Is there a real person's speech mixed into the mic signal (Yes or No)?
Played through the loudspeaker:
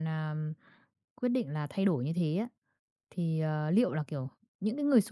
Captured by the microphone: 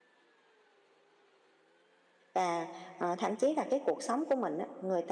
Yes